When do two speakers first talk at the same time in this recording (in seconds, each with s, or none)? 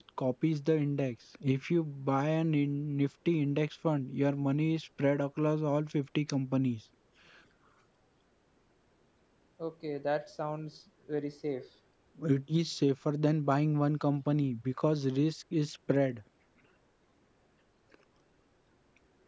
none